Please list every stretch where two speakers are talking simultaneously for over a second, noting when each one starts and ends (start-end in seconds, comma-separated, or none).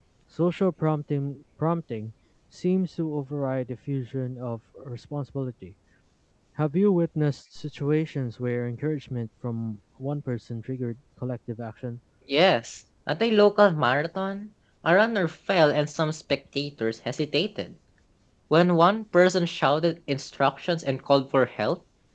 none